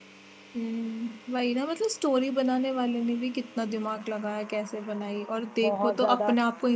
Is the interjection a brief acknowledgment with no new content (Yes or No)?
Yes